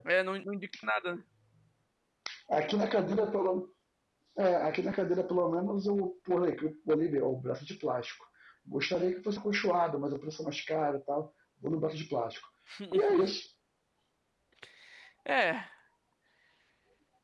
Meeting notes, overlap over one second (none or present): none